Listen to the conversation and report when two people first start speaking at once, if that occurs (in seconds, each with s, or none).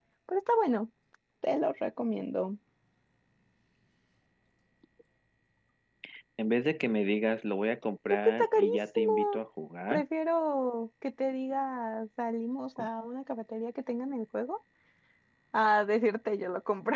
8.1 s